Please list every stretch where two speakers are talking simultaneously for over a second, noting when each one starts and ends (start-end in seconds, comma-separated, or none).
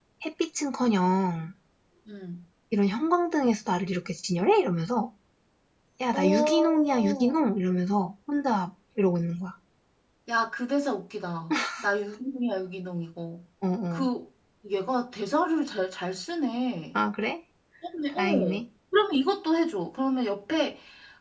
6.1-7.4